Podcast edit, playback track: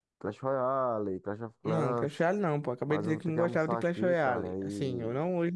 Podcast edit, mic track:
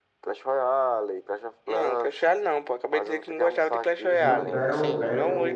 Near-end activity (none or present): present